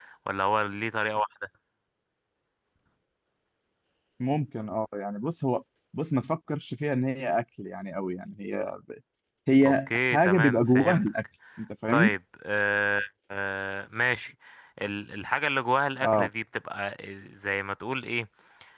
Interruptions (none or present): present